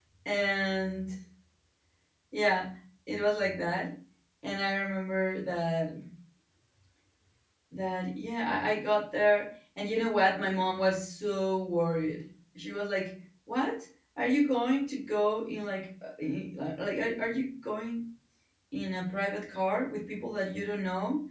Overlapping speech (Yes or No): No